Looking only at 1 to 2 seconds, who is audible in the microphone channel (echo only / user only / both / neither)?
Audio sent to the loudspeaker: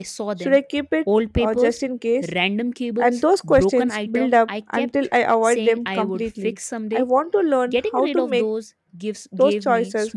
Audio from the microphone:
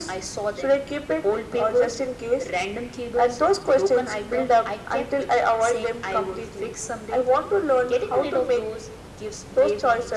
echo only